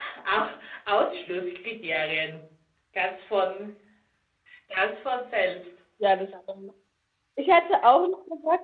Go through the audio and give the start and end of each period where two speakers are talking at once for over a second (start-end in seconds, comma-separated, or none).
none